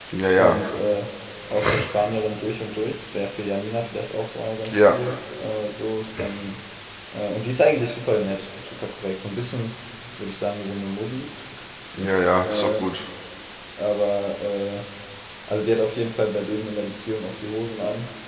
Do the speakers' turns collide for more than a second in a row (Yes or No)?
No